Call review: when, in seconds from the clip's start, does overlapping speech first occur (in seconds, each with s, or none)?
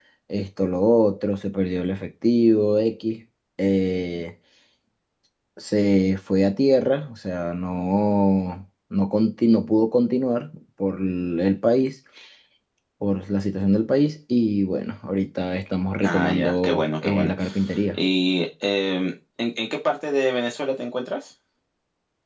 16.0 s